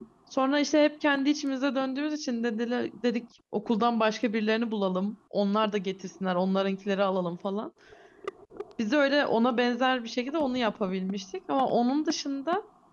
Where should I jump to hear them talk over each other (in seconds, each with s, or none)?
none